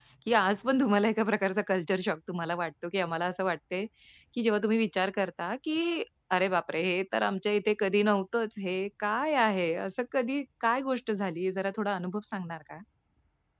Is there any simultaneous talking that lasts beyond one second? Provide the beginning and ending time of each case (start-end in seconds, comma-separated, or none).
none